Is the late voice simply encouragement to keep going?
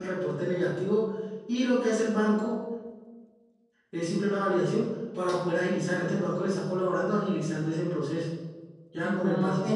No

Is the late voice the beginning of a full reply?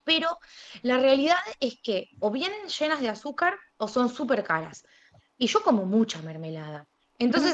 No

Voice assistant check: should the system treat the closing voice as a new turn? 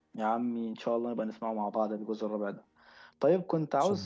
No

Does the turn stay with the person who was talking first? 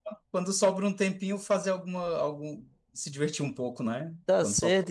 No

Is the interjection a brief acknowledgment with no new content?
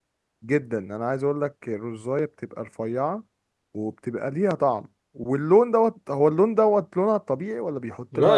No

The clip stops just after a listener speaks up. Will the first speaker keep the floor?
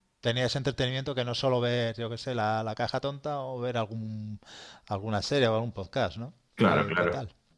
No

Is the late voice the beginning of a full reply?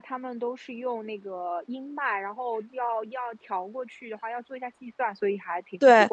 Yes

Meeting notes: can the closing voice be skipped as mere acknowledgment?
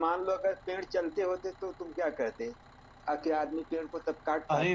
No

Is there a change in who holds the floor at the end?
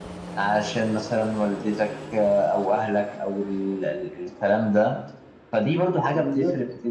No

